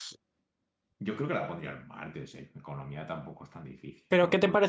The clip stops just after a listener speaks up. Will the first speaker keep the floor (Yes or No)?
No